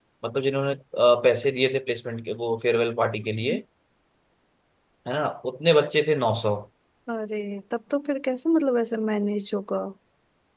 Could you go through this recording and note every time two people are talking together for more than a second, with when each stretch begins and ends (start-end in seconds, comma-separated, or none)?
none